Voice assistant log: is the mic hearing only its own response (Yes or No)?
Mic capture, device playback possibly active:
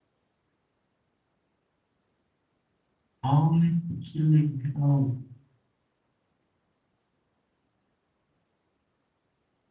No